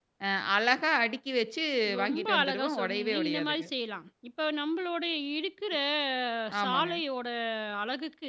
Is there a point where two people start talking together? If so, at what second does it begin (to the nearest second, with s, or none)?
2 s